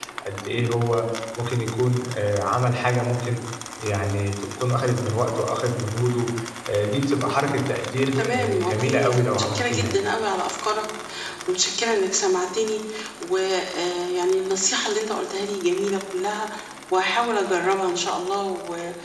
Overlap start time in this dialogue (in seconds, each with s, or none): 8.2 s